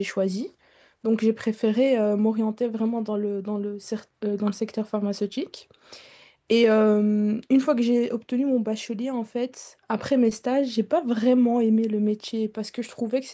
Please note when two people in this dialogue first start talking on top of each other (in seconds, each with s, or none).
none